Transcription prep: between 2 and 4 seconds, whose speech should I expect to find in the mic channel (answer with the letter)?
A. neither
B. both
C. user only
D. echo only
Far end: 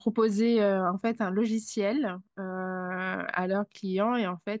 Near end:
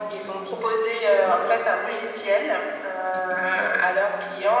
B